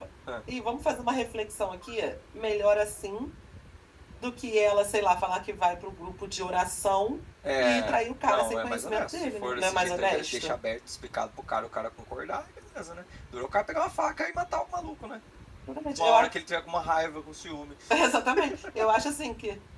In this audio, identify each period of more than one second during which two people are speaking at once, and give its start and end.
7.6-10.5

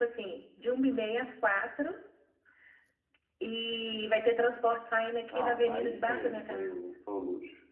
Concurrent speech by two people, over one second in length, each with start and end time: 5.3-6.9

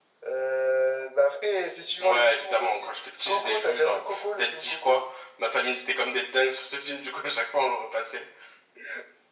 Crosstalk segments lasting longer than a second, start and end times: 2.0-5.0

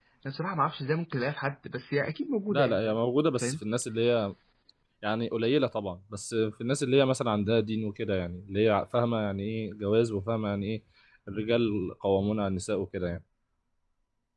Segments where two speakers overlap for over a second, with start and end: none

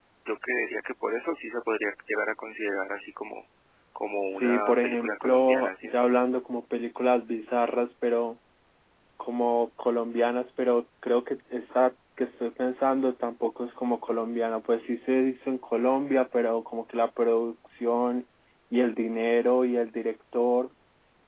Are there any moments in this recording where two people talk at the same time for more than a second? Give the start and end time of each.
4.1-6.0

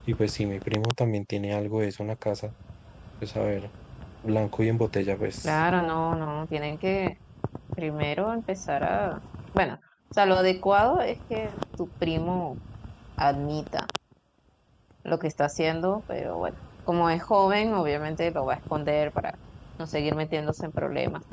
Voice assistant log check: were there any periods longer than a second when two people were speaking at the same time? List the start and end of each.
none

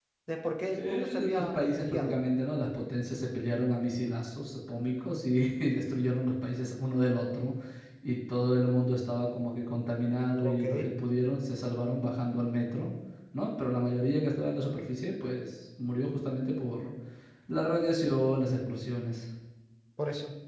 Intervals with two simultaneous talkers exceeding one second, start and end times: 0.7-2.2

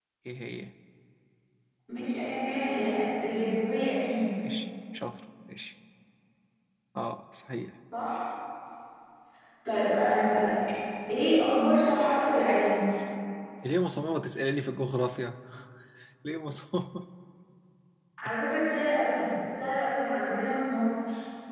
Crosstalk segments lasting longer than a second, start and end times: none

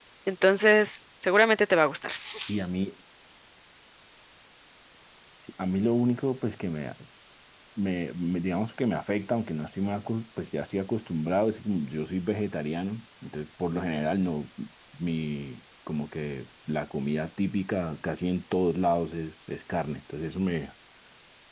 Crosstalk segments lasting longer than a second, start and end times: none

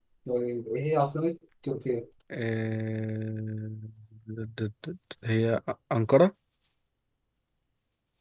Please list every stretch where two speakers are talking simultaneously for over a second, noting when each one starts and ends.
none

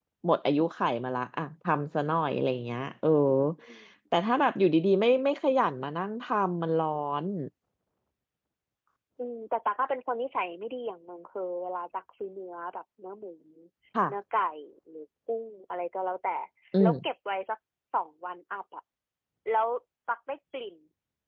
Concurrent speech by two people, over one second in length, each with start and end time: none

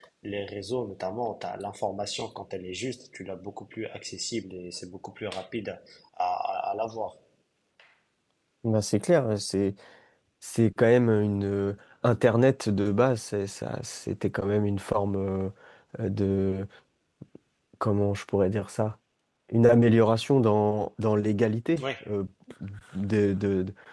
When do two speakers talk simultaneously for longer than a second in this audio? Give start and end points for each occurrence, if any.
none

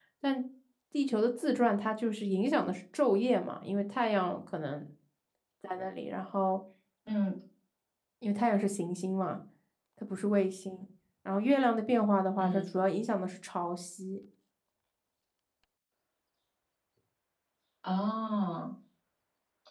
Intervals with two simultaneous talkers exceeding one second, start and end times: none

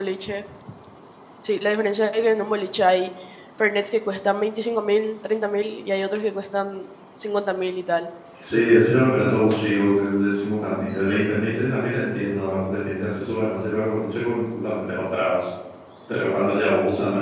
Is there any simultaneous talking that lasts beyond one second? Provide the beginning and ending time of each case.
none

